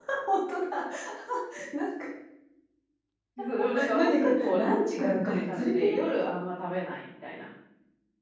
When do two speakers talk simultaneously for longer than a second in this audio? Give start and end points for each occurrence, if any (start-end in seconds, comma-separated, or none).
3.9-5.8